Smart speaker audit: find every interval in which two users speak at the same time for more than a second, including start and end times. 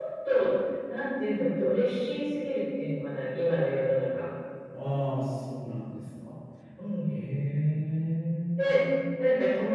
none

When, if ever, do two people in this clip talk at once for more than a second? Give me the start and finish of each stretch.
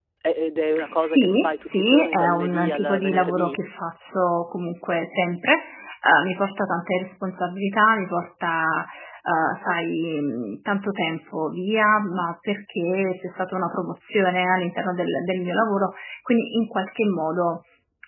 1.0-3.6

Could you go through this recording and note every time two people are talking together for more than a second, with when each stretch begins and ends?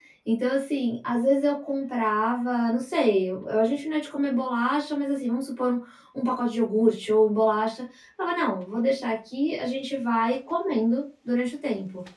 none

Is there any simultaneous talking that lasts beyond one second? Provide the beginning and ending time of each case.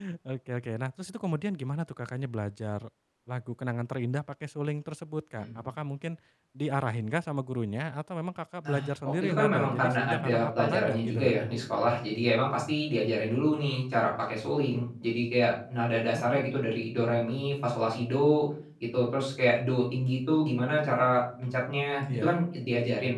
8.6-11.3

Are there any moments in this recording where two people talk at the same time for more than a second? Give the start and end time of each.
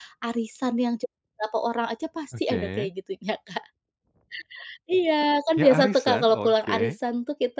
5.6-6.9

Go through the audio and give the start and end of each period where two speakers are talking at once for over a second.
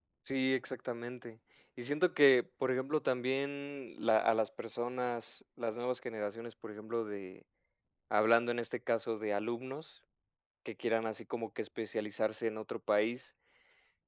none

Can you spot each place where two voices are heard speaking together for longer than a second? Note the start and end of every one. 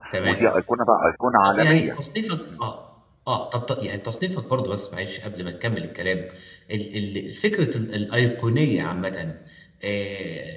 none

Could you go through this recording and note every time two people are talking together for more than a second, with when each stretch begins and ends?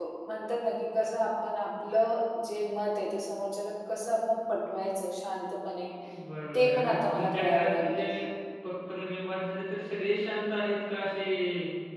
6.5-8.1

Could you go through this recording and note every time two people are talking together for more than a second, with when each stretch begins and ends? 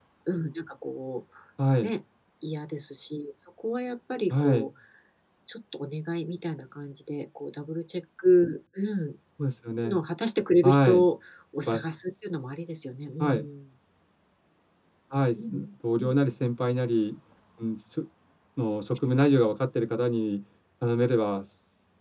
none

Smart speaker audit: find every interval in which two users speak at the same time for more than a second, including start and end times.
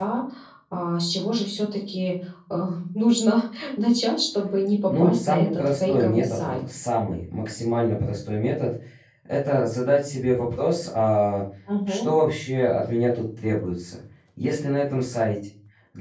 4.9-6.6

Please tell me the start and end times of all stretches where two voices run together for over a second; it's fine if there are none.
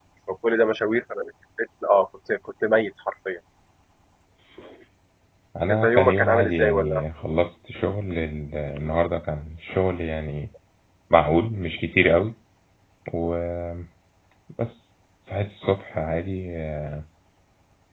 5.7-7.0

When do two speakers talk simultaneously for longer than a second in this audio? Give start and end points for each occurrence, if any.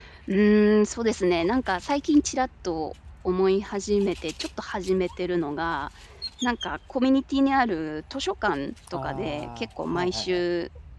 8.9-10.4

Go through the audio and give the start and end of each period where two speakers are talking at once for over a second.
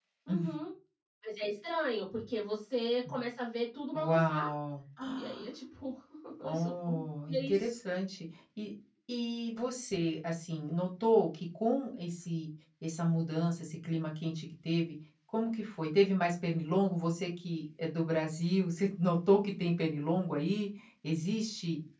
6.5-7.7

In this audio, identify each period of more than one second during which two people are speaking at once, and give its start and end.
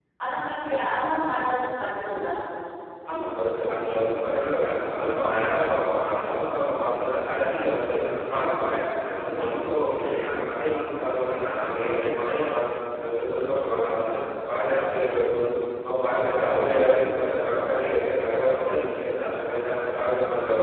none

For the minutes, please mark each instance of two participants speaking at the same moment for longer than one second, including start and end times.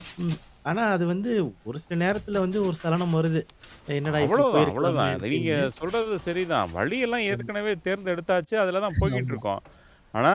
4.2-5.6

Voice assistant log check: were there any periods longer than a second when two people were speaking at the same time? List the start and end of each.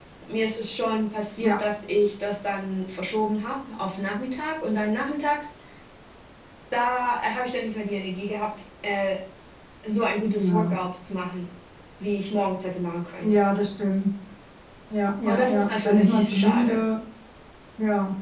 15.3-16.8

